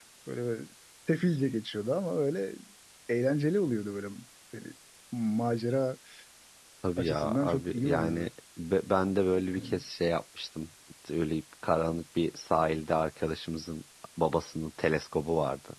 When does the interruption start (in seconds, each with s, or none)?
7.0 s